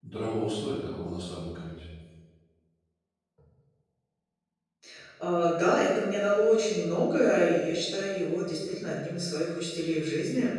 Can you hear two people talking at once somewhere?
No

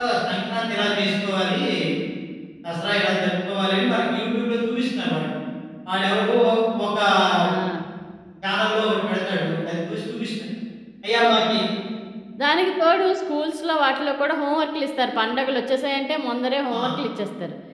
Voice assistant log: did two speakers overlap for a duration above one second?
No

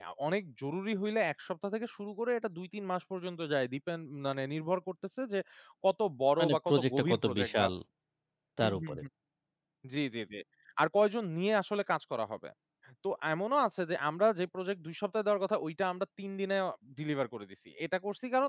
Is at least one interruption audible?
Yes, from 6.4 s

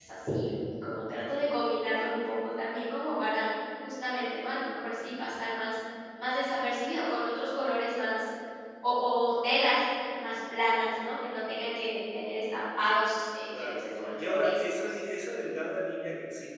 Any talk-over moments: Yes, from 13.5 s

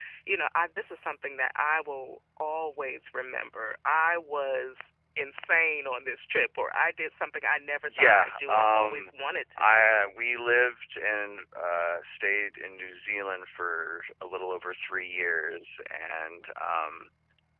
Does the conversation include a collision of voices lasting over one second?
Yes, from 7.8 s

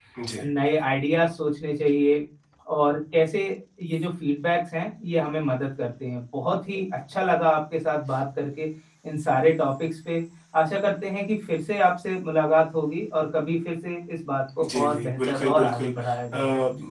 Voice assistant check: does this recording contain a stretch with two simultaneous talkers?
Yes, from 14.6 s

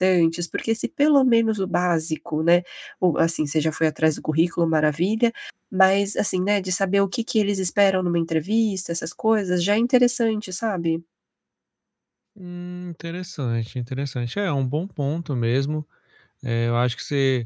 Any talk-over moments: No

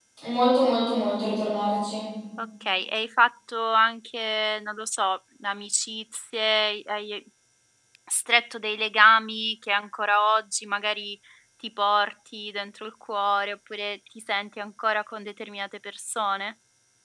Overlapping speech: No

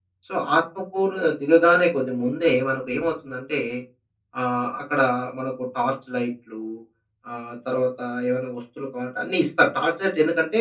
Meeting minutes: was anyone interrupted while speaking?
No

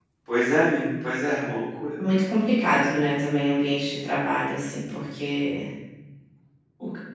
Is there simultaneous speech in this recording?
No

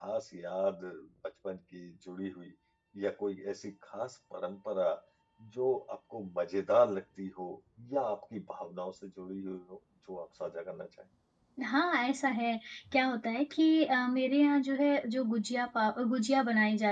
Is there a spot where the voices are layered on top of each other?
No

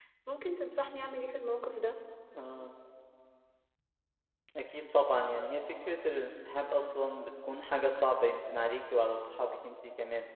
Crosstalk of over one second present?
No

